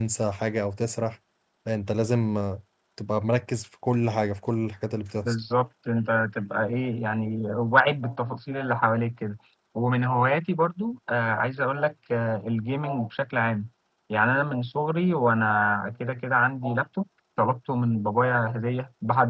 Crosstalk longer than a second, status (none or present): none